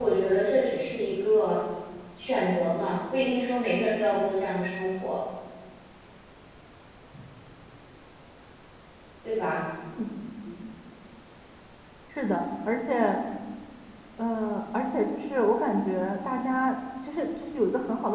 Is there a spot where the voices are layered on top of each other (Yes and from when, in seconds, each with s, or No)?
No